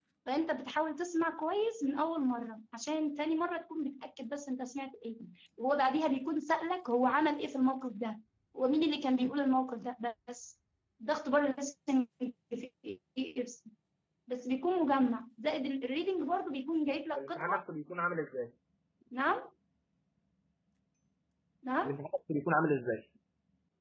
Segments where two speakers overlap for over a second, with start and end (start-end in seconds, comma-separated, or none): none